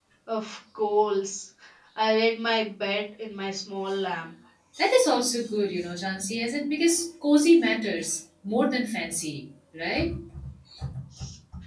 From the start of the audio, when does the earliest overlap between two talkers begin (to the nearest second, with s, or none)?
none